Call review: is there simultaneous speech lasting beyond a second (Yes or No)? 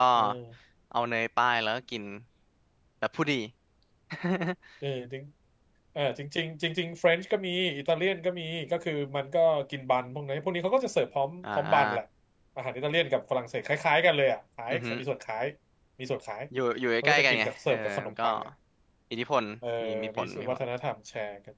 Yes